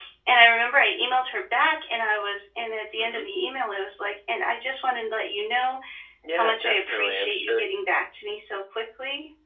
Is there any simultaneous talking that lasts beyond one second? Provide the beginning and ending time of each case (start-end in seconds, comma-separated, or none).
6.3-7.6